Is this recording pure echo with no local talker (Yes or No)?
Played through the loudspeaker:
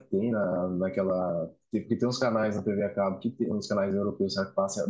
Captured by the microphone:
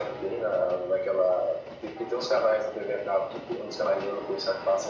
Yes